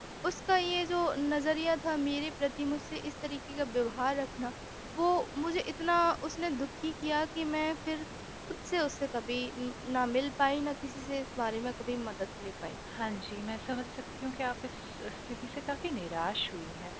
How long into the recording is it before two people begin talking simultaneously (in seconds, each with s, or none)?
none